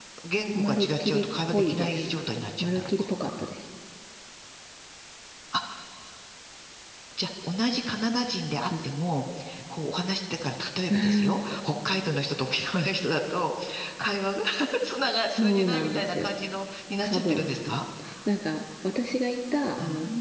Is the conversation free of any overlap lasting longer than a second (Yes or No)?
No